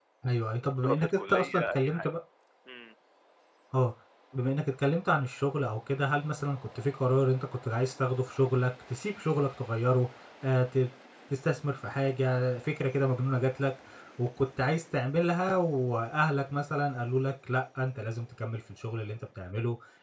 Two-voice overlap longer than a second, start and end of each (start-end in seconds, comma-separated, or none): 0.8-2.1